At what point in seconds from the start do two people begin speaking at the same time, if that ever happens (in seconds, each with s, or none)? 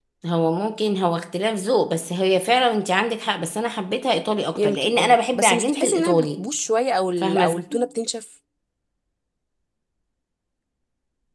4.5 s